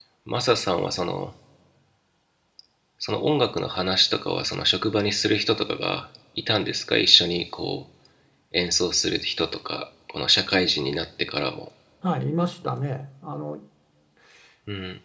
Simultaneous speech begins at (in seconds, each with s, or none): none